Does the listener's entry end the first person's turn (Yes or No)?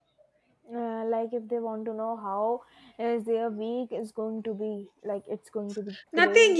Yes